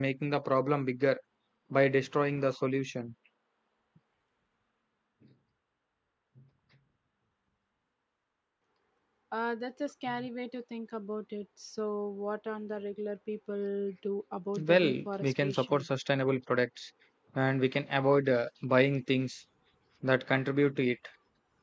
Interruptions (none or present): present